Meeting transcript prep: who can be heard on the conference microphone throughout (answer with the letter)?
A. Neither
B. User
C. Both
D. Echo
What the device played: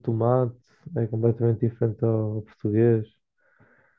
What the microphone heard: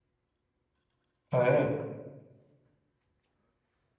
B